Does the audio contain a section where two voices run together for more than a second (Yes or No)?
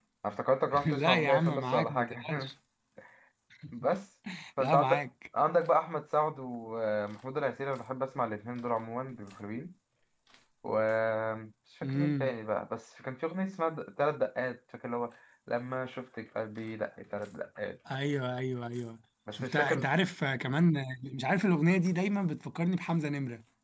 Yes